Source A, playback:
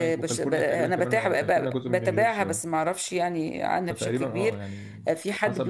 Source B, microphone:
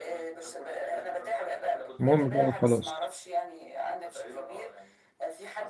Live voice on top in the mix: Yes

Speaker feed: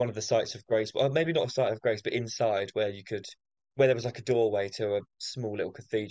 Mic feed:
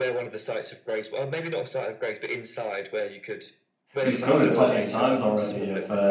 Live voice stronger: Yes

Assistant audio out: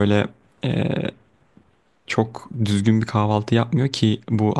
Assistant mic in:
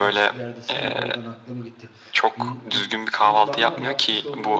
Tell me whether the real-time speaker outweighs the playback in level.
No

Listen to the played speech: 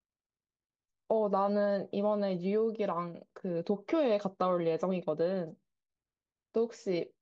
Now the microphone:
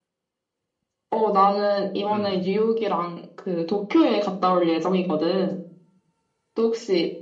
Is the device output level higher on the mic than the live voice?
Yes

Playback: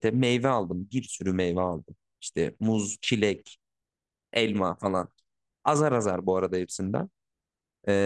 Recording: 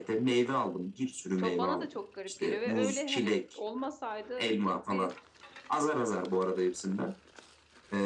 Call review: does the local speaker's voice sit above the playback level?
No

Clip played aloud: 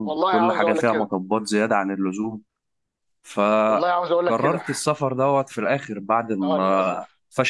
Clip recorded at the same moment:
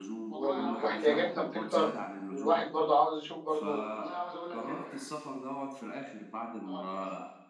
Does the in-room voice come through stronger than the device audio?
Yes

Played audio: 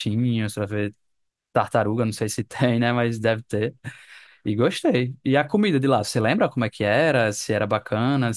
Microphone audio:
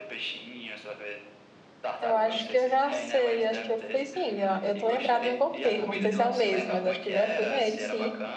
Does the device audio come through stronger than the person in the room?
No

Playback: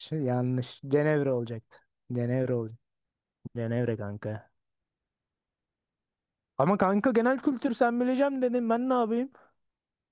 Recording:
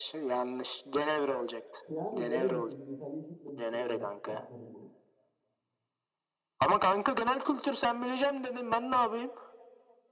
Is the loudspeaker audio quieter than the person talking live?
No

